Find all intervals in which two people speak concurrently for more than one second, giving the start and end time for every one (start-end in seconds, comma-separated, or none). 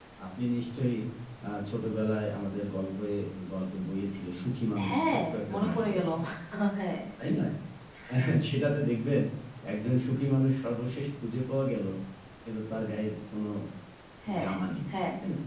4.9-6.1